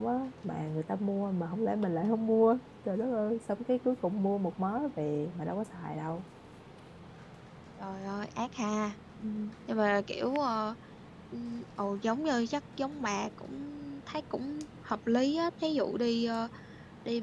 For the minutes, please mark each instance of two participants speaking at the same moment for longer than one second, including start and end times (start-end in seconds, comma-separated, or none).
none